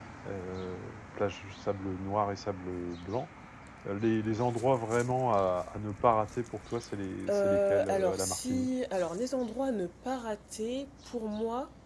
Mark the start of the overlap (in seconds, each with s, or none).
7.3 s